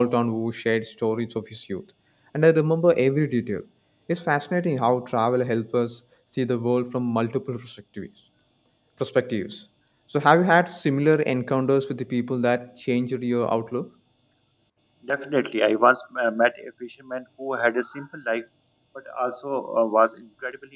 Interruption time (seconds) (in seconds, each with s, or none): none